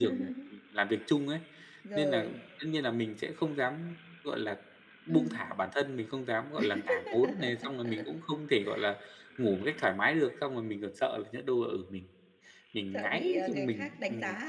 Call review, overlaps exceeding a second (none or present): present